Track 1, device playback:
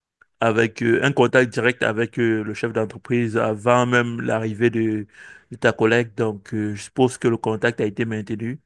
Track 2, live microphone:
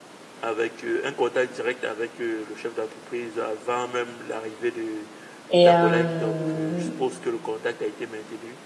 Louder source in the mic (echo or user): user